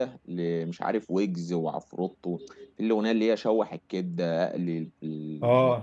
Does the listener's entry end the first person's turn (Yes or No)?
Yes